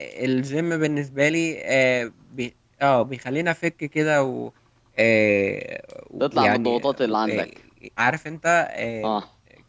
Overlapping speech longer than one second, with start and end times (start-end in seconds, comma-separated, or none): 6.2-7.5